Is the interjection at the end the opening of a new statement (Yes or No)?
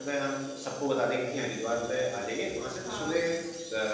No